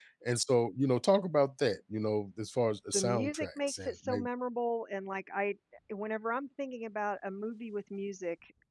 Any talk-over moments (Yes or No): Yes